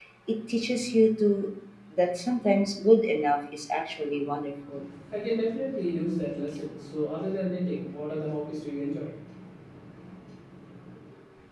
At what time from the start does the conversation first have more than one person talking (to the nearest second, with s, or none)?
none